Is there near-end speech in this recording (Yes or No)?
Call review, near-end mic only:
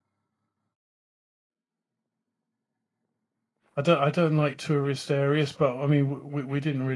Yes